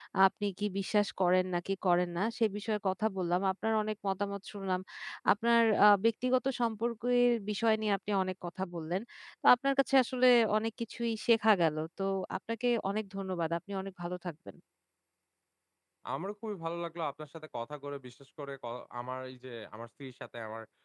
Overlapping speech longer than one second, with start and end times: none

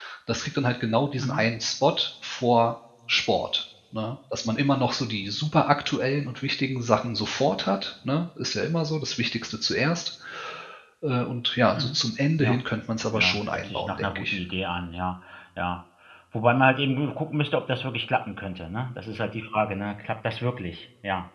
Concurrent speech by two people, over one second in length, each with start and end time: 13.1-14.4

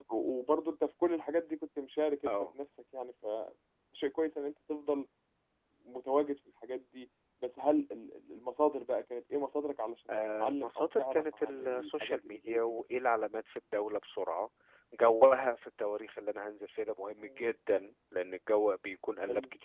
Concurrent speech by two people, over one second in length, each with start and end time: 10.3-12.8

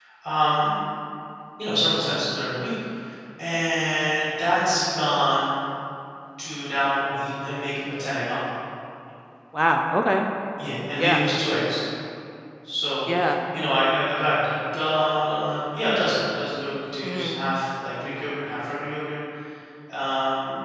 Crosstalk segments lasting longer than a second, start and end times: none

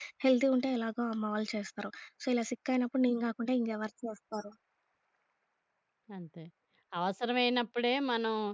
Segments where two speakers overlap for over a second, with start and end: none

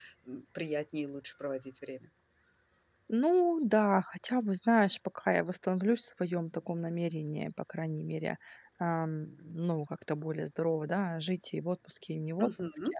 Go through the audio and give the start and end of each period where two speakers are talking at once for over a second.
none

